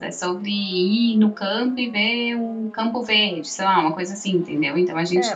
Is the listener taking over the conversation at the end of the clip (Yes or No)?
Yes